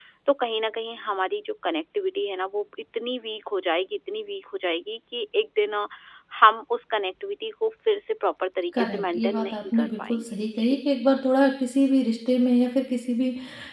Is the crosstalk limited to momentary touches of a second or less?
No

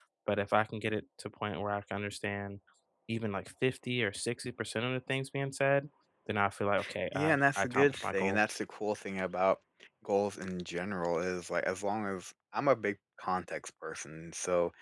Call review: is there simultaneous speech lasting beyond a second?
Yes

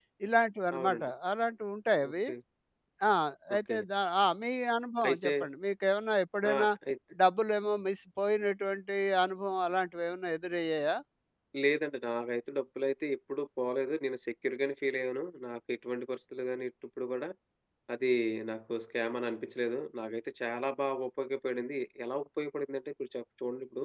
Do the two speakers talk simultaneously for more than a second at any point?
No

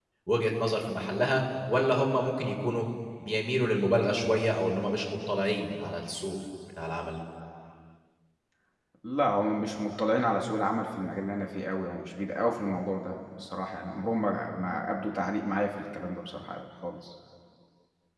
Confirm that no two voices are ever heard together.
Yes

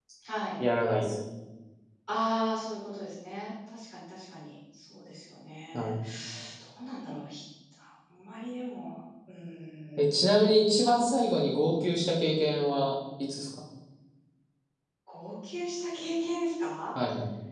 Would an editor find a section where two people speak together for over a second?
No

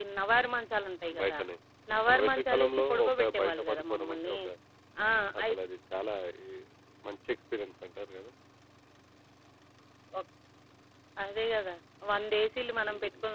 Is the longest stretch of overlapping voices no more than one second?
No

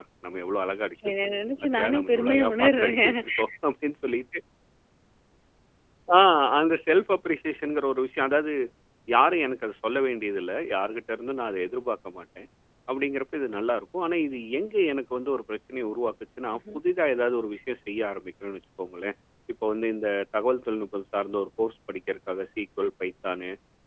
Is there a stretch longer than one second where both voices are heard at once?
Yes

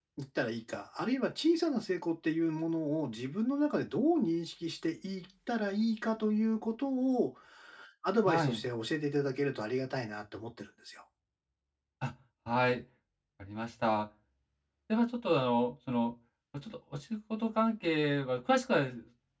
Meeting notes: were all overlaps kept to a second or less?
Yes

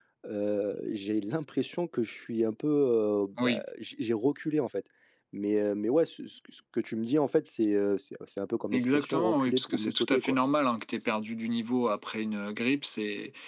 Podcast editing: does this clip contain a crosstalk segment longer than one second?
Yes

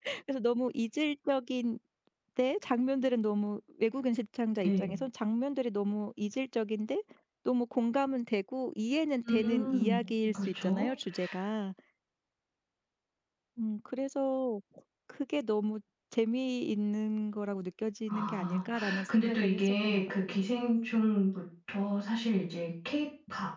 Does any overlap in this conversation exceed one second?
Yes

